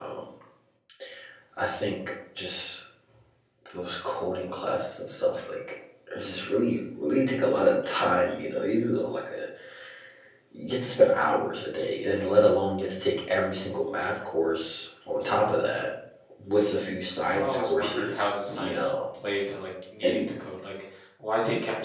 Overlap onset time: 17.3 s

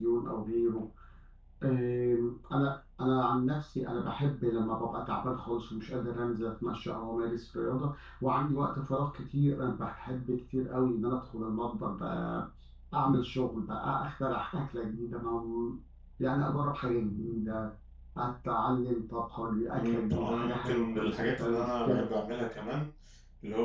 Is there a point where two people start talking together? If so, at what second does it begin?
19.8 s

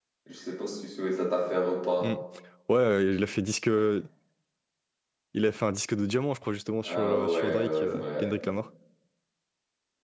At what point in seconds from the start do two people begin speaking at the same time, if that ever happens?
6.8 s

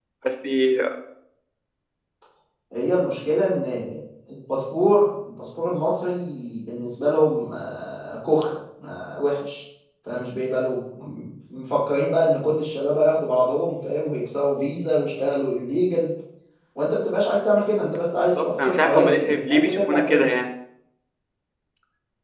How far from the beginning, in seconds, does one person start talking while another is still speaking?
18.4 s

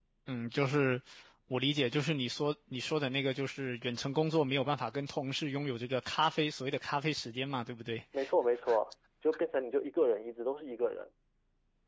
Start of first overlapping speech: none

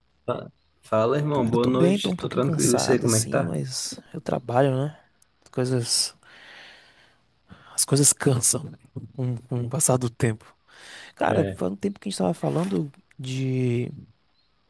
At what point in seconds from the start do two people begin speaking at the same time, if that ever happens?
1.3 s

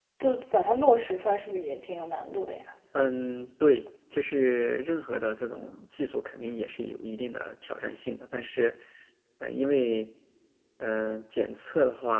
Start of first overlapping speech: none

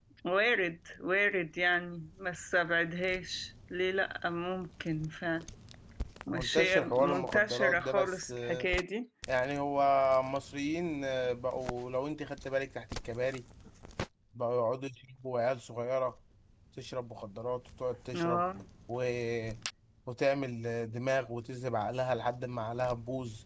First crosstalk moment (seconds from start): 6.3 s

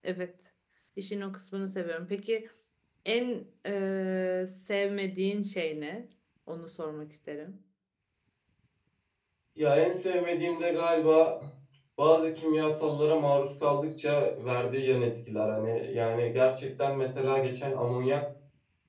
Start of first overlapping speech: none

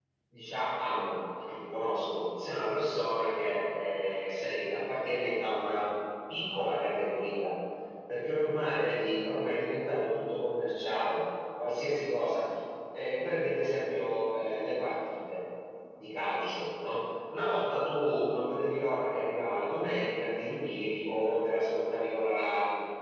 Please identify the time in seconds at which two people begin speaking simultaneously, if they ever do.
none

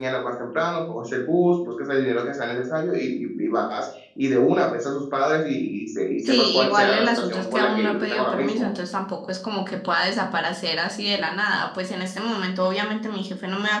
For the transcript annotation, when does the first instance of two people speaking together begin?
6.2 s

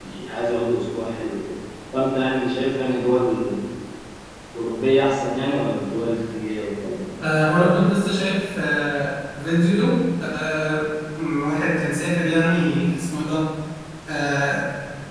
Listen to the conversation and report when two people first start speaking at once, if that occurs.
none

